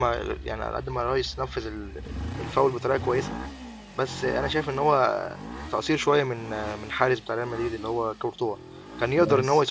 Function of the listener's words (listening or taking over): listening